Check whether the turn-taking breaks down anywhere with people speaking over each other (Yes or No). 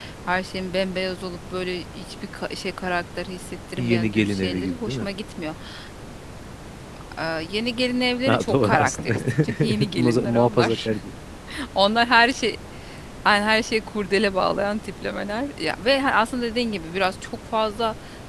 Yes